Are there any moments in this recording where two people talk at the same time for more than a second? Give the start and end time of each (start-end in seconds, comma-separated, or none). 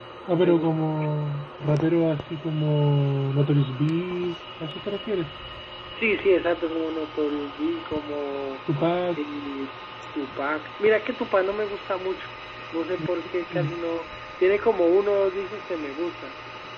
none